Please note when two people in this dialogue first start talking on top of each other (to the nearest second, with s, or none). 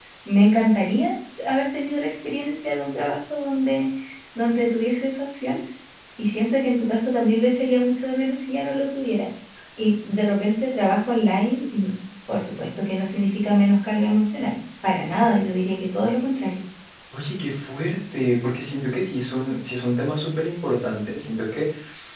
none